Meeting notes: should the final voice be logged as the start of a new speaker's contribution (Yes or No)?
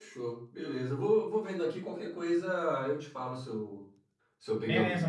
Yes